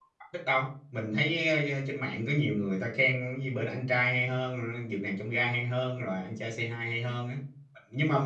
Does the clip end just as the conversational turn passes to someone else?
No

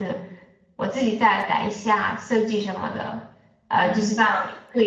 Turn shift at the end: No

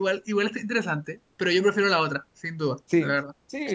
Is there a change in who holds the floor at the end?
Yes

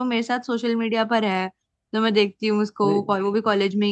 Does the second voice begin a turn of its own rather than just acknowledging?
No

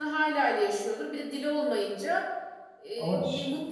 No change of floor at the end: Yes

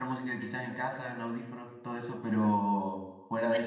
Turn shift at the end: No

